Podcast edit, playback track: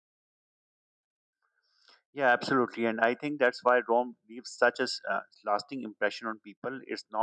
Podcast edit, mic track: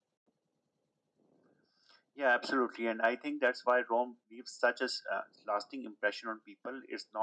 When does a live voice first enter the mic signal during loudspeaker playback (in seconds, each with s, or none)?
none